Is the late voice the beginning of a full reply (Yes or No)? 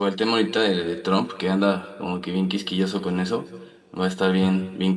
No